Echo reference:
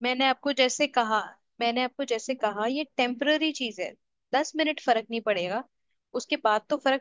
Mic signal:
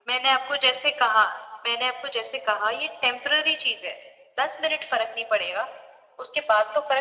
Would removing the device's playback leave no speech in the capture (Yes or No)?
Yes